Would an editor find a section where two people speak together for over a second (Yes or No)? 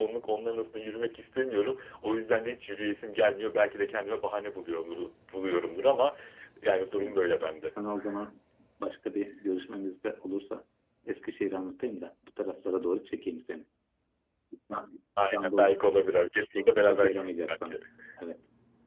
Yes